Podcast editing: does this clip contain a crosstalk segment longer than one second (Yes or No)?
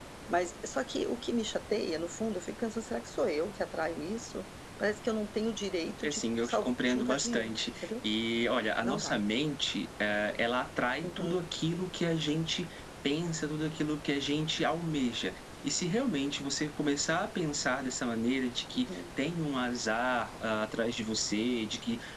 Yes